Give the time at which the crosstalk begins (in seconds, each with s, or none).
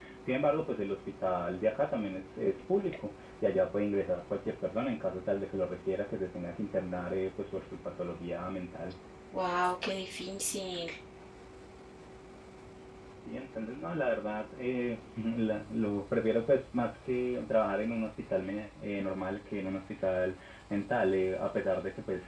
none